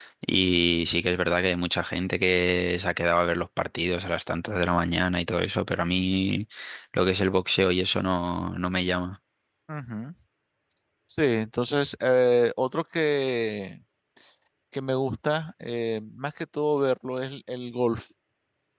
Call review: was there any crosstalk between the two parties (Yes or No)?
No